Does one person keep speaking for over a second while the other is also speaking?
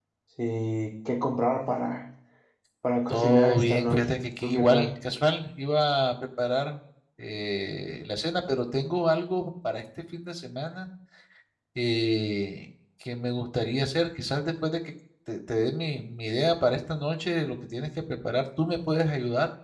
Yes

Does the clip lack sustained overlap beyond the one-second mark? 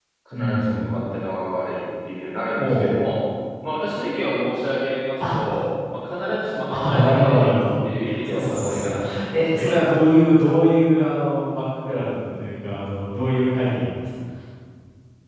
No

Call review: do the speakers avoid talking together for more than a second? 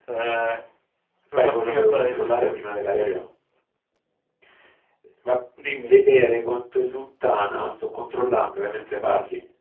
No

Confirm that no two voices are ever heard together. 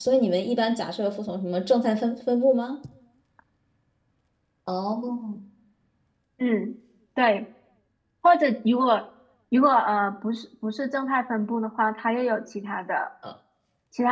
Yes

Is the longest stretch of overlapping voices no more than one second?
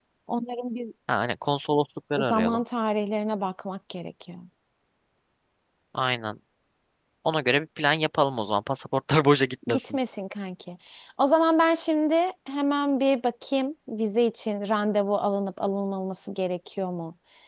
Yes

